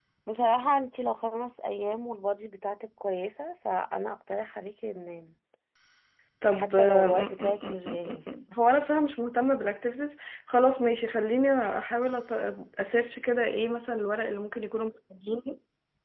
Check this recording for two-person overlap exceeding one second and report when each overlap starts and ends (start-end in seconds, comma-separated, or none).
6.5-8.3